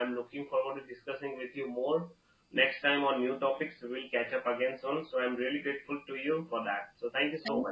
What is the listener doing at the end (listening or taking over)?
taking over